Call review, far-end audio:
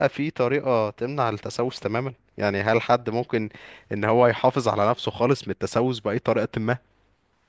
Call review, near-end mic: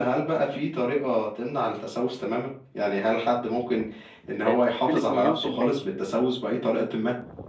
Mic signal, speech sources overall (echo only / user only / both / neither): both